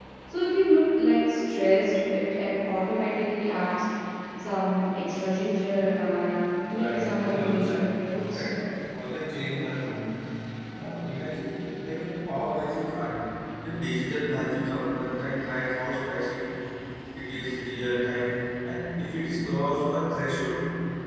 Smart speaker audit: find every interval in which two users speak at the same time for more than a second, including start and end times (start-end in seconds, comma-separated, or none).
6.7-8.4